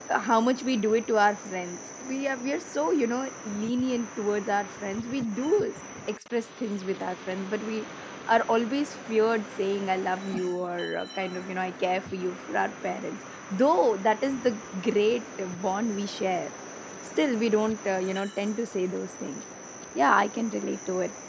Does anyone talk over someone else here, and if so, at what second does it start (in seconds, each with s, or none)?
none